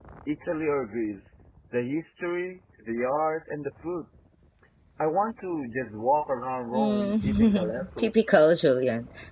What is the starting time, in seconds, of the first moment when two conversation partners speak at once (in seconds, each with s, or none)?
6.7 s